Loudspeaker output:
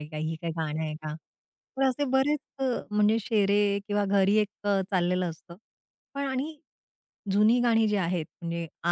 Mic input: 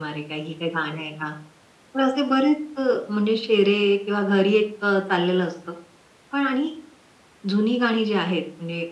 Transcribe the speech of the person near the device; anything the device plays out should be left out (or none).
none